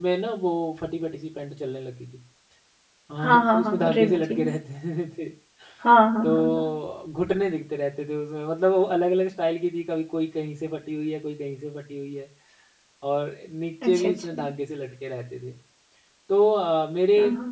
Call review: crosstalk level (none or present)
present